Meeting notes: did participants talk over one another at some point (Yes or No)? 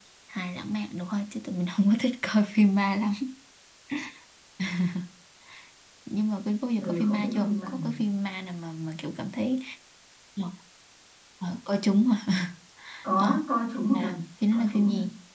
Yes